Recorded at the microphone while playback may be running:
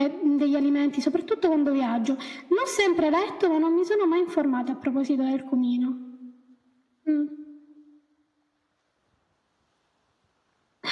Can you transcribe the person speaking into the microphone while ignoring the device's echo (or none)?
none